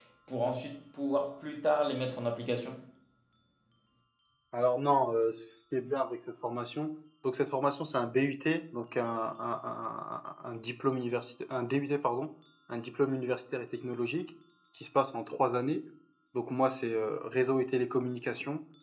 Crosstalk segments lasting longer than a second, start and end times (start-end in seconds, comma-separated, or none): none